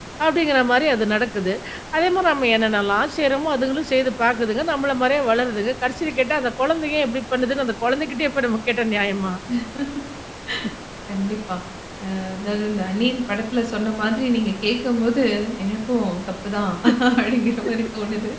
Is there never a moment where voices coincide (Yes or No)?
Yes